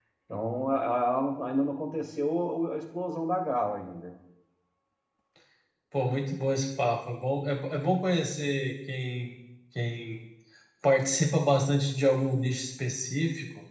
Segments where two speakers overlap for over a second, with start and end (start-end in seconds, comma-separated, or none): none